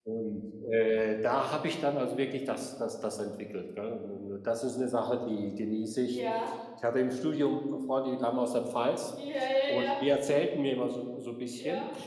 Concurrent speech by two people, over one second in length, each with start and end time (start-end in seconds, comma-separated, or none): none